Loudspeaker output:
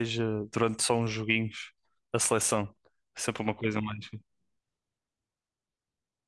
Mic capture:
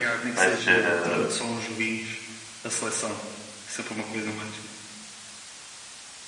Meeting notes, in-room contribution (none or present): present